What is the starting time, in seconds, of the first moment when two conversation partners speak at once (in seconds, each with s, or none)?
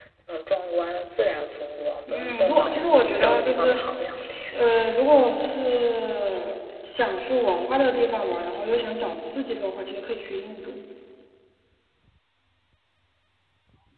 2.1 s